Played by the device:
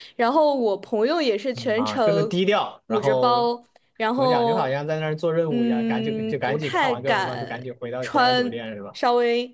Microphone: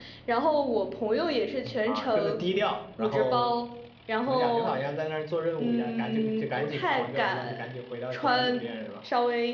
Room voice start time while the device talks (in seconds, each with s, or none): none